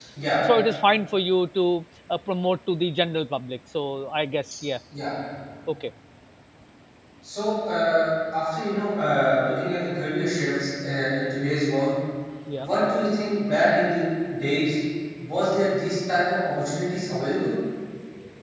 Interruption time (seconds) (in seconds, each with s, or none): none